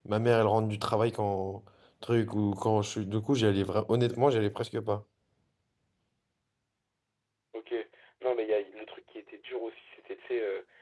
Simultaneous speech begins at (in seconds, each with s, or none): none